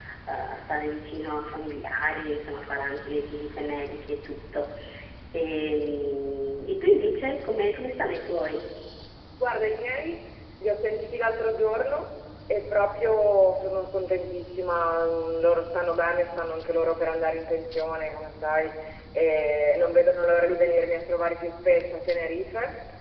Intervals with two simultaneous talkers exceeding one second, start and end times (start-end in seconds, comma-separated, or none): none